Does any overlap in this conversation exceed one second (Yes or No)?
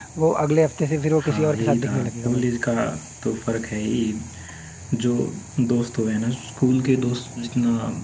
Yes